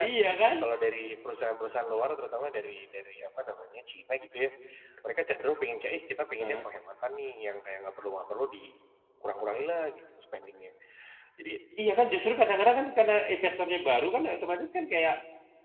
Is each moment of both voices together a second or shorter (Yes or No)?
Yes